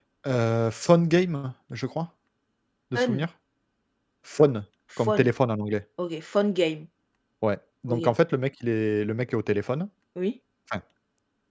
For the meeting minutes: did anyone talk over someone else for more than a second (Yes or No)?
No